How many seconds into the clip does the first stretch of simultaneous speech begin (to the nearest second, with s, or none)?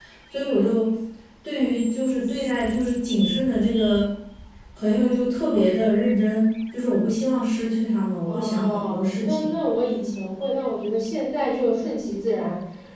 8 s